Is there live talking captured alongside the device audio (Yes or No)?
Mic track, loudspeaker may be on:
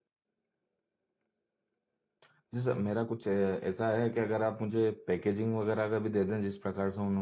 Yes